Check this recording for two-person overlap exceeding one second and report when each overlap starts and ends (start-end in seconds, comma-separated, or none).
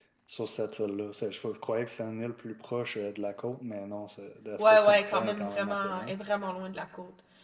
4.6-6.1